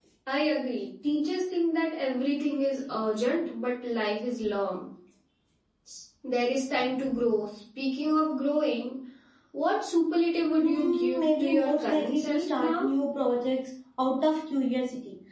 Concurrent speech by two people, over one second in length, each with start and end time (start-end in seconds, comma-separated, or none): 10.5-12.9